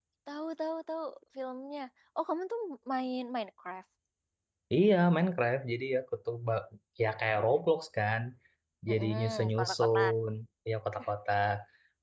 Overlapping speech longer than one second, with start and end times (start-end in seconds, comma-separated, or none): 8.9-10.1